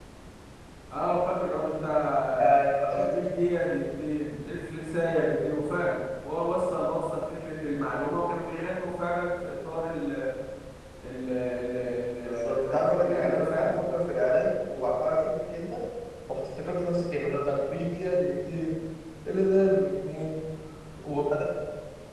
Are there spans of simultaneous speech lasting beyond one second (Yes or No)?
Yes